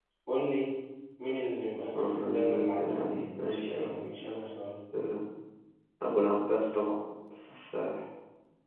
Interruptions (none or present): present